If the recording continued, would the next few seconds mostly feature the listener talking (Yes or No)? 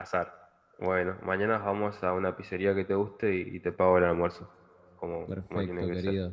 Yes